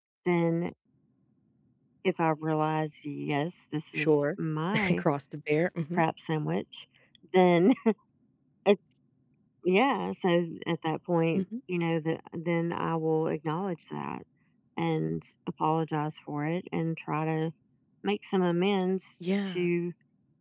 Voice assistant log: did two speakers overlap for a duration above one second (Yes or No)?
No